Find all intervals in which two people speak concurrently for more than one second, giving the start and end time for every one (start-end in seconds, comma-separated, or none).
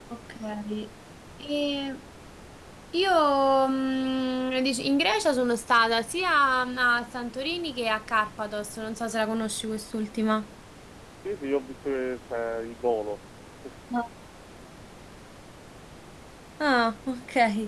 none